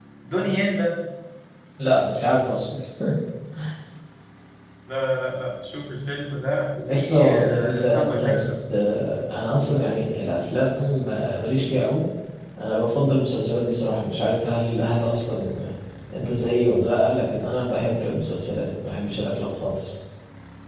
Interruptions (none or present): present